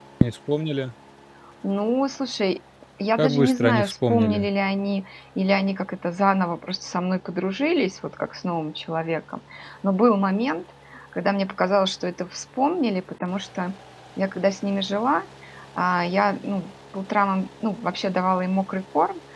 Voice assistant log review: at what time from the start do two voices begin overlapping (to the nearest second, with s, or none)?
3 s